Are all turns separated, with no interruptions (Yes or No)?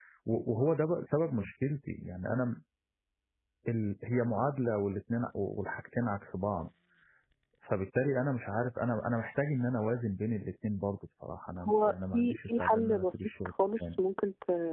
No